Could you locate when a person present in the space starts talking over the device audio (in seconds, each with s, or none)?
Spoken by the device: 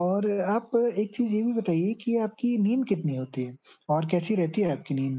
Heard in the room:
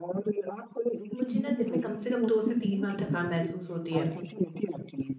1.1 s